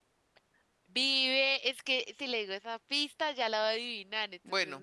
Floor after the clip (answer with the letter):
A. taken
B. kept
A